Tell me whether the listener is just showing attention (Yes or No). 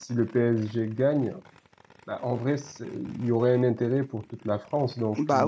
No